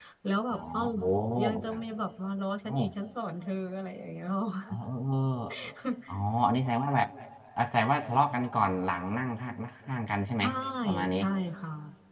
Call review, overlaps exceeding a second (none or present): none